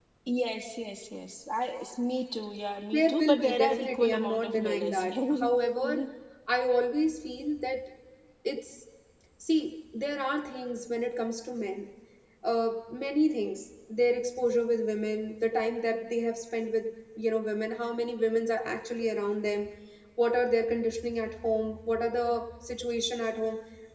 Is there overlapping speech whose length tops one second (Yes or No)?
Yes